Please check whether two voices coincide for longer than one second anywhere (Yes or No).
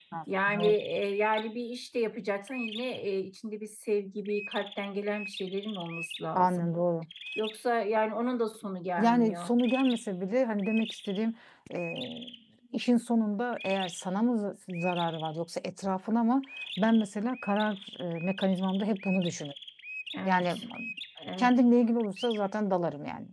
No